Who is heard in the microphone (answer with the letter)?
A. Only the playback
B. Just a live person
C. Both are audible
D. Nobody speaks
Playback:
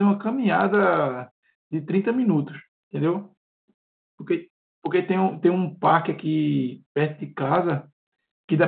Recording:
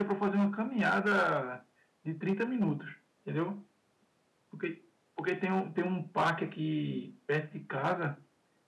A